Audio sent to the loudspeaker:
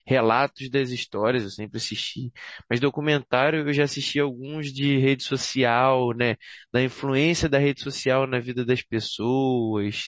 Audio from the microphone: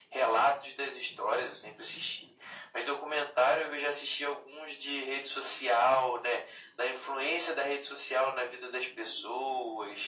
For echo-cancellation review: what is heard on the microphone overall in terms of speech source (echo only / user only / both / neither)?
echo only